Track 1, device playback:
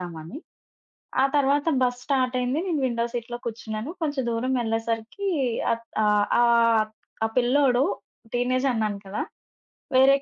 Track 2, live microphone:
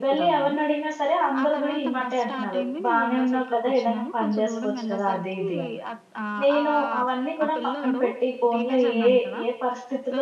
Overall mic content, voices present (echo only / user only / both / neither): both